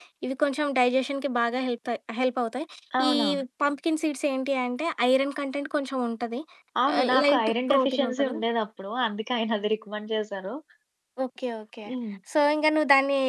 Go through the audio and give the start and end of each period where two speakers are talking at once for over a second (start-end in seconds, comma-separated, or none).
7.0-8.4